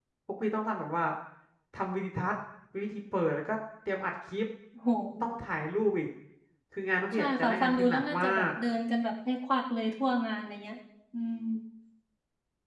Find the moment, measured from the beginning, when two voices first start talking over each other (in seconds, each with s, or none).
7.1 s